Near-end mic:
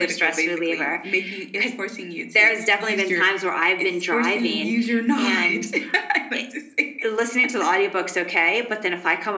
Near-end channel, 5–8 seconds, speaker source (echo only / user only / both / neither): echo only